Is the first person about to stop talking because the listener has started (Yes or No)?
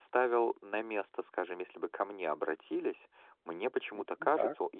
No